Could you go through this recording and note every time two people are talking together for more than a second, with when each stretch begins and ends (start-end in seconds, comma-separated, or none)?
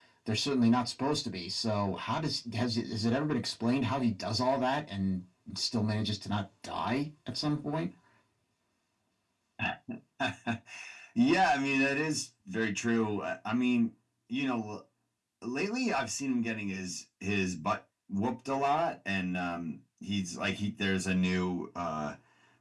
none